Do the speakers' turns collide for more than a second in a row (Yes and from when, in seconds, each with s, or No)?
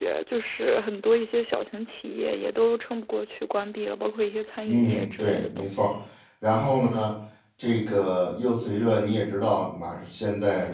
Yes, from 4.7 s